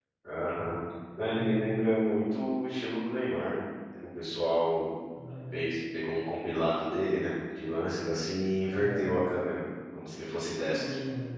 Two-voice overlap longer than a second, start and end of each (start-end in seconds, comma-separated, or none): none